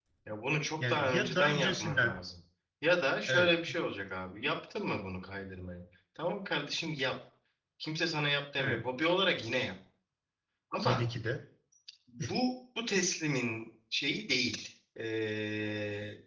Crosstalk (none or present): present